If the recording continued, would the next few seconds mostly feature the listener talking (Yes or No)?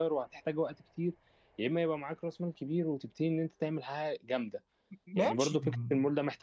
No